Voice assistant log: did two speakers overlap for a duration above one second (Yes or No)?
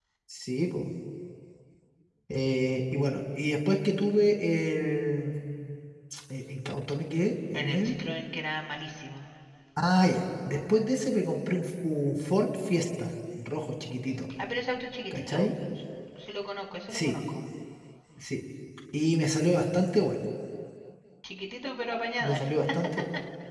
No